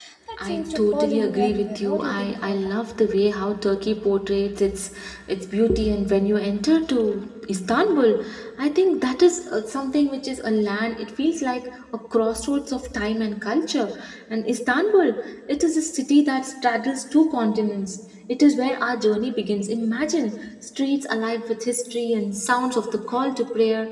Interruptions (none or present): present